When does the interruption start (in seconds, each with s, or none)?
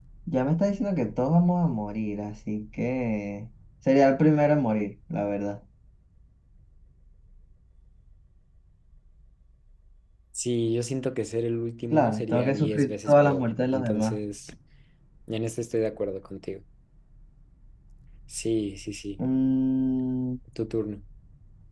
11.9 s